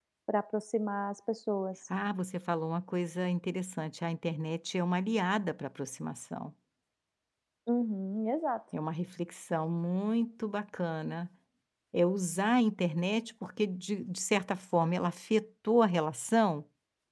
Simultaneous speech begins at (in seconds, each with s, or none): none